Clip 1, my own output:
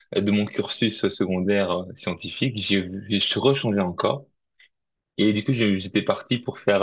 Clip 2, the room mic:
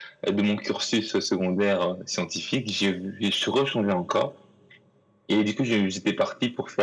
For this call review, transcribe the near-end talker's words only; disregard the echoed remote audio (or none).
none